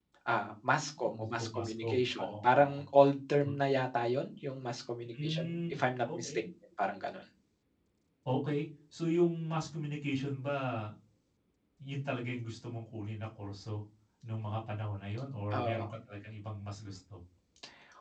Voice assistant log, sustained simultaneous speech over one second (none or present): present